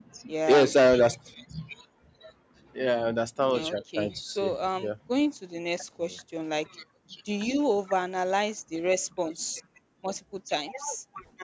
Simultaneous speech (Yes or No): Yes